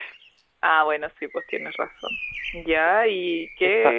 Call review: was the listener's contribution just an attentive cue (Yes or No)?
Yes